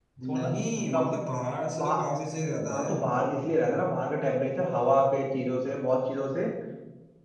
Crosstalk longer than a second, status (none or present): none